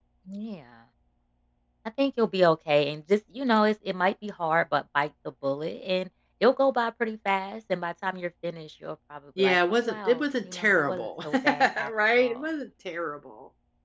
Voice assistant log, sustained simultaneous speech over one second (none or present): present